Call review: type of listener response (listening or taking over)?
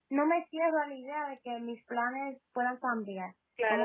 taking over